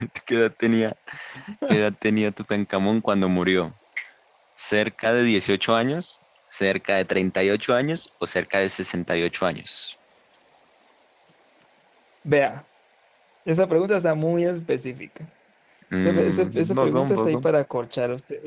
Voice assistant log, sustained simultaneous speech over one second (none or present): present